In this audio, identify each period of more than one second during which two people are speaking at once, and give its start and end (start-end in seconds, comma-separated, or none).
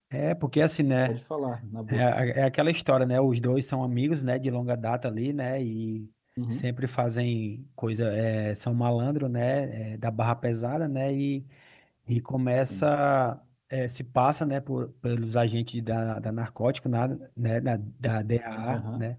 none